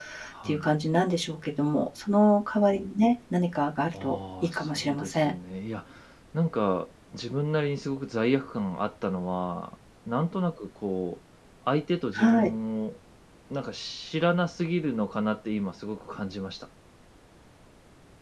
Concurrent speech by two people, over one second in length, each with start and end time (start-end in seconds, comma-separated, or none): 4.0-5.3